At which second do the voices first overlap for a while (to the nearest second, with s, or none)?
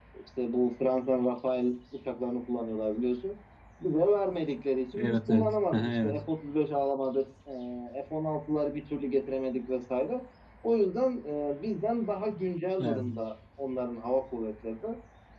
5 s